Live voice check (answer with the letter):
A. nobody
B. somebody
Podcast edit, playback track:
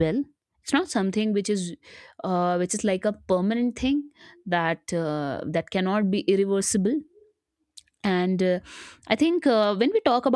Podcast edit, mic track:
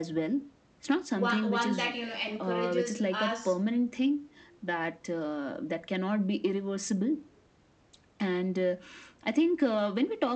B